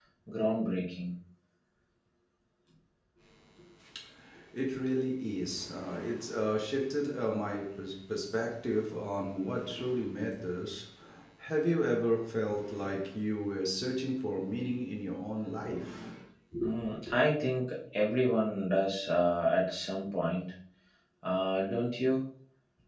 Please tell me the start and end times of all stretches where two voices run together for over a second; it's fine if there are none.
none

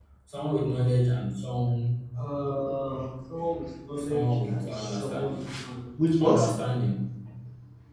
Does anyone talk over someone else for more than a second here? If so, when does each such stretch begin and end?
4.0-5.4

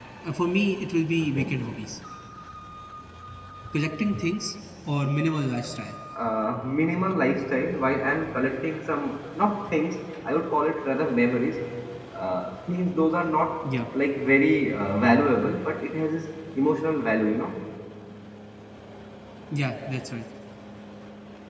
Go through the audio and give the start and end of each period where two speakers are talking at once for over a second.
none

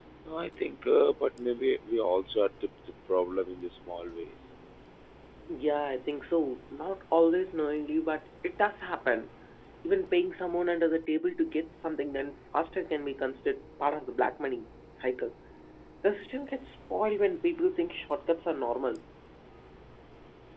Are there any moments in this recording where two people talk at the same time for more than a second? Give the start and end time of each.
none

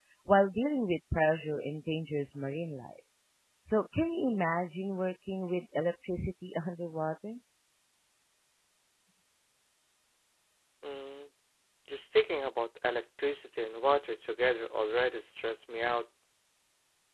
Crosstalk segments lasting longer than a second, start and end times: none

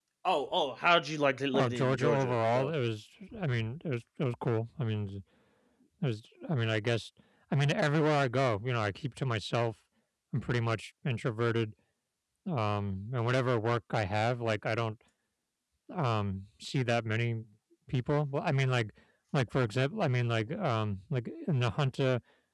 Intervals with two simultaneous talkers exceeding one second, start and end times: 1.5-2.7

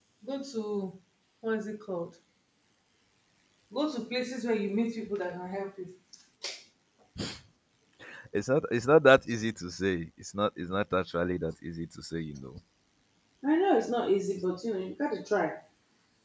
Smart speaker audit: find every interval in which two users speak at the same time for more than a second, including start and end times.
none

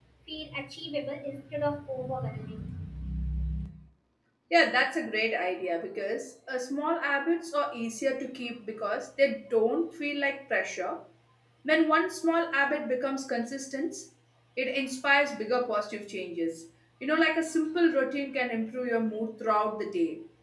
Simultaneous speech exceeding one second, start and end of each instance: none

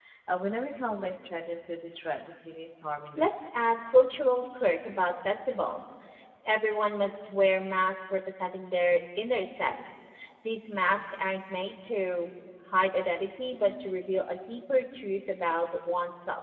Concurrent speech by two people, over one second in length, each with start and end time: none

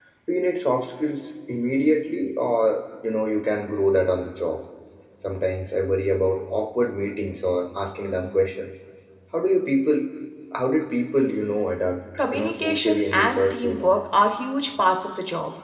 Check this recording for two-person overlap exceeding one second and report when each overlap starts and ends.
12.3-13.9

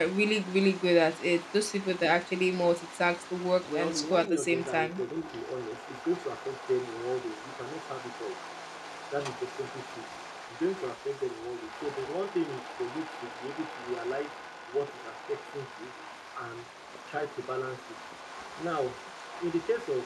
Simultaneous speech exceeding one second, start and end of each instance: 3.6-5.0

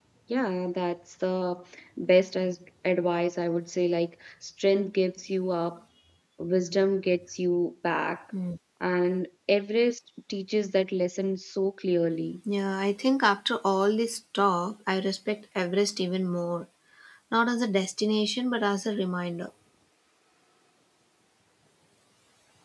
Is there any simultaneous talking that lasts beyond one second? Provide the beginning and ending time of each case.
none

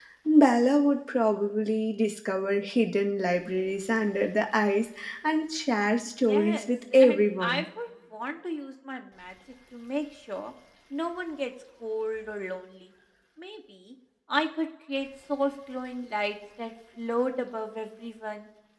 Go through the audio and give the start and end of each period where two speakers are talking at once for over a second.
6.2-7.6

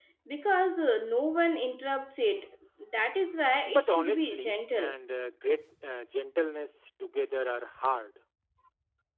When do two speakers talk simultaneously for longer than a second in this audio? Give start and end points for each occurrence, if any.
3.6-5.0

